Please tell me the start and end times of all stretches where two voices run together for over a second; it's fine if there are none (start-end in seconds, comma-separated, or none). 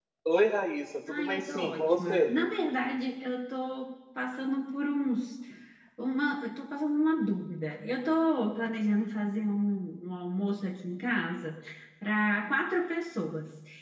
1.1-2.3